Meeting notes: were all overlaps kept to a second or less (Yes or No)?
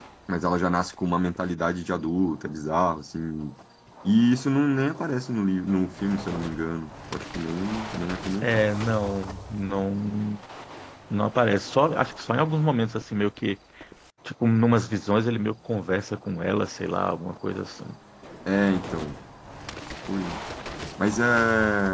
Yes